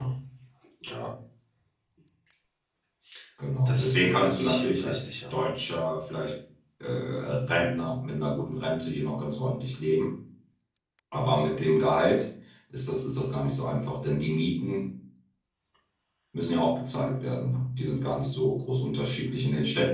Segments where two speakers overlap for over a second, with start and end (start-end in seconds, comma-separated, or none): 3.6-5.3